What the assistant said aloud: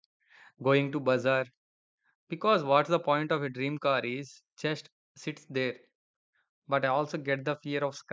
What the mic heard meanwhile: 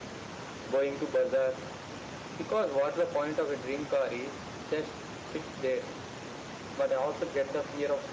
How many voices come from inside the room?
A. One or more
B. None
B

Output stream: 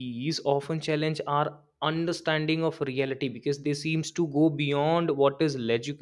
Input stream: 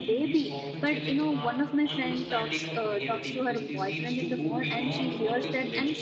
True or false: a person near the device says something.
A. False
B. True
B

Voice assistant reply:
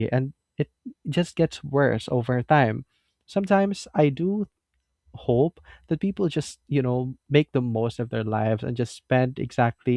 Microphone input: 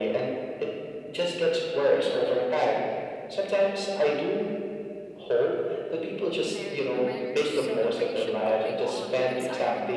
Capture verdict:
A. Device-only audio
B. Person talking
B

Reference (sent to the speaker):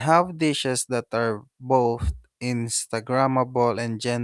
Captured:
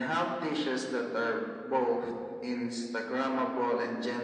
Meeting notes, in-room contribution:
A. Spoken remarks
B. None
B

